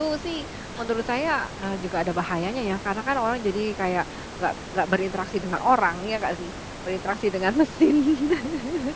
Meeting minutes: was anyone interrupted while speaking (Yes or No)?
No